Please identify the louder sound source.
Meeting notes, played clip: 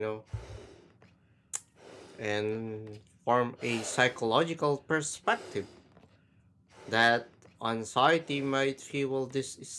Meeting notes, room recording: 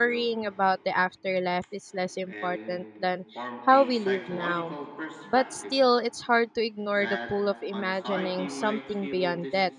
user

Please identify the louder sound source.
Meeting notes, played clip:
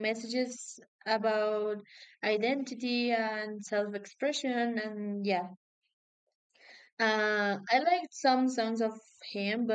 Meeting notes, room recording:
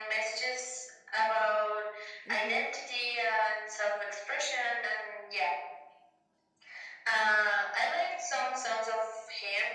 echo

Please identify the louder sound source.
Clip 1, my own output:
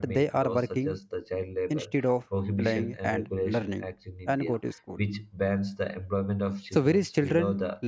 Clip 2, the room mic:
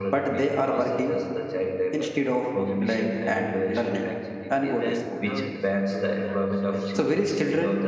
echo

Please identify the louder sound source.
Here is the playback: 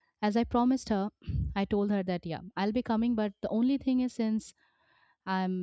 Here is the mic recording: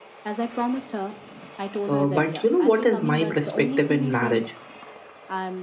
user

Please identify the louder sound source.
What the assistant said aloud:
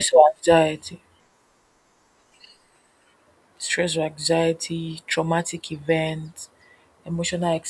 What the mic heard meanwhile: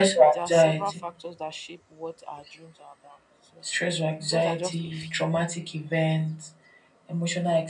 echo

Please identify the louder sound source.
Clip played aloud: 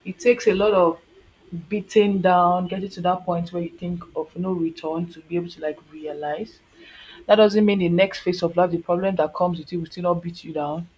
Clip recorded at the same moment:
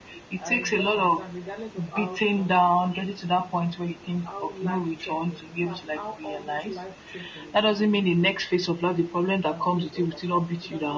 echo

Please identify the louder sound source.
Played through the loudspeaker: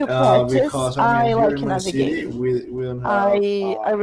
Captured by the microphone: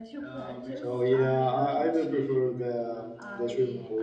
user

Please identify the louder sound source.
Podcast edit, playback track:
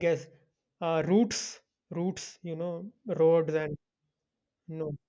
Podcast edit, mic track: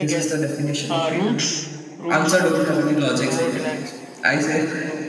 user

